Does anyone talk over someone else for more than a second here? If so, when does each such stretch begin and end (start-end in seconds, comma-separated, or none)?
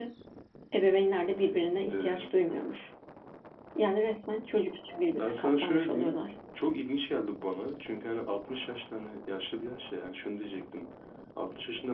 5.0-6.2